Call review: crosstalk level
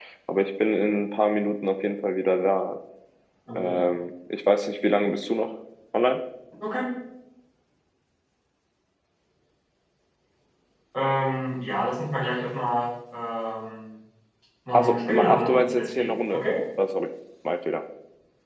present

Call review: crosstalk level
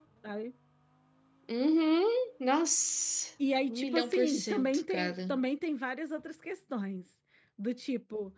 present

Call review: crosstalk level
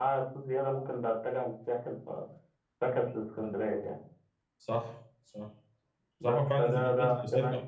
present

